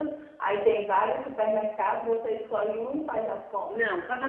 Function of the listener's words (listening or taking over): taking over